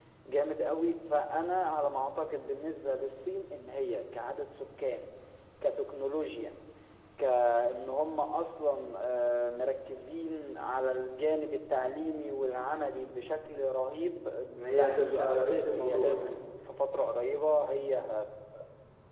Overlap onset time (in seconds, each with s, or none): 14.7 s